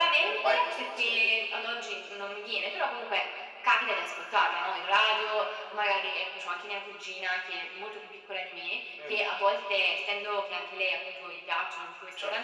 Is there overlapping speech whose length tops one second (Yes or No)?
Yes